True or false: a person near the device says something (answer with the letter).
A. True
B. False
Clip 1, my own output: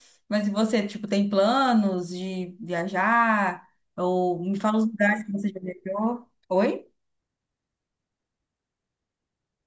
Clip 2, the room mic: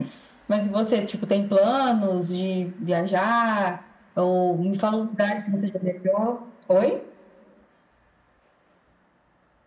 B